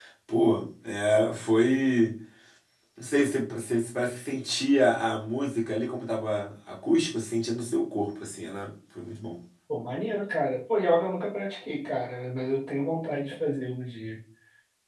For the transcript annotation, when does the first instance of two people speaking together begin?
none

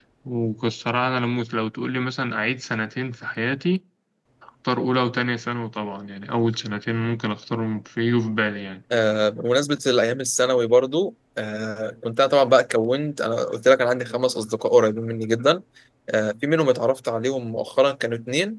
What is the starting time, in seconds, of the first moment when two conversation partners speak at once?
none

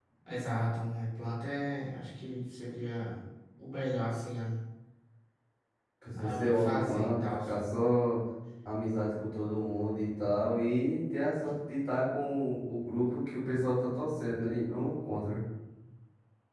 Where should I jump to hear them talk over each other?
6.1 s

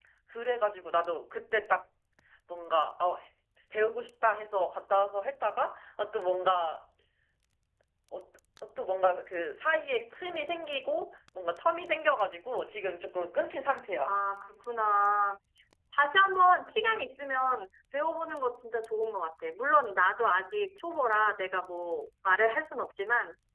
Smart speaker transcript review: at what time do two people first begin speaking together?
none

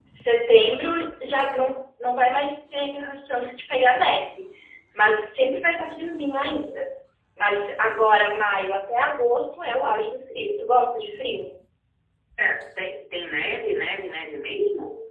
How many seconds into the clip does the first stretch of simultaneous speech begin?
none

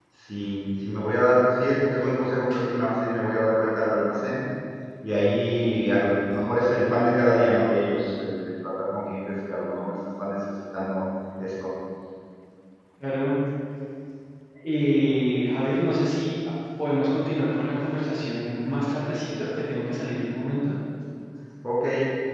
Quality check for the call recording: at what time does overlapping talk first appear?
none

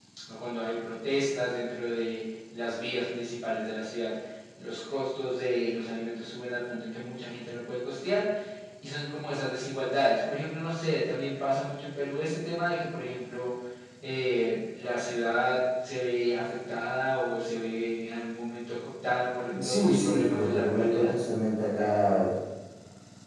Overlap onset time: 19.5 s

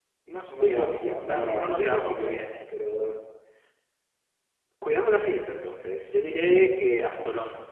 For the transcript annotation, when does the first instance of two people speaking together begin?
0.6 s

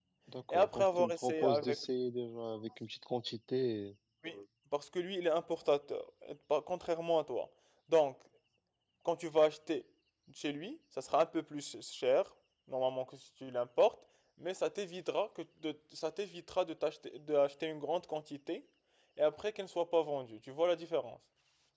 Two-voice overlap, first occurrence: 0.5 s

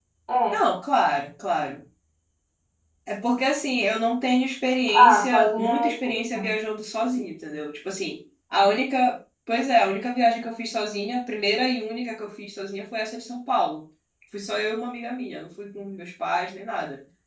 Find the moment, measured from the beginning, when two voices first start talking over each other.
4.9 s

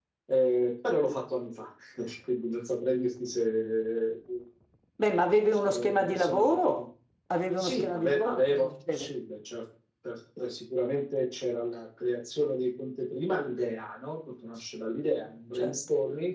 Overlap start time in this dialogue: 5.5 s

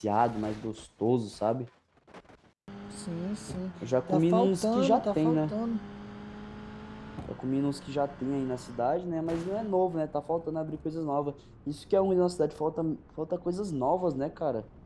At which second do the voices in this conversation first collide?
4.1 s

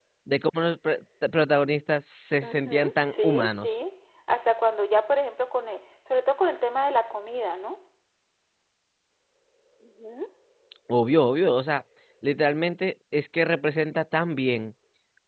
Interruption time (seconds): 2.4 s

